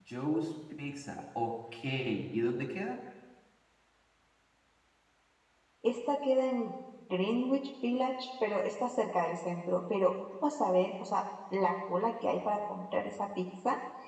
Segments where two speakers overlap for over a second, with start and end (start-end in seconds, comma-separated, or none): none